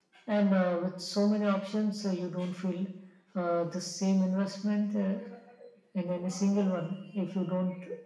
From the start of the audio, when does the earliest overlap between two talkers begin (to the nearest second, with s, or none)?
none